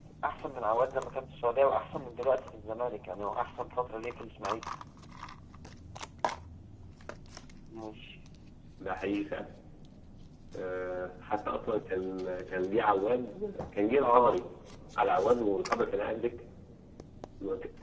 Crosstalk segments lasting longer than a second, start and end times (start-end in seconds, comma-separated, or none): none